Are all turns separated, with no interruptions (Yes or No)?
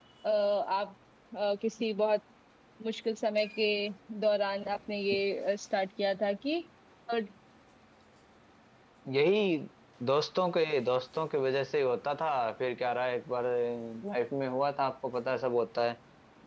Yes